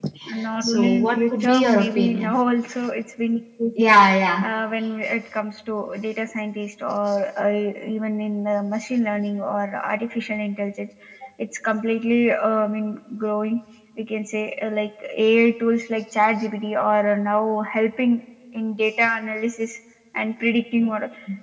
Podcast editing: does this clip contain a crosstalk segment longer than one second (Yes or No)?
Yes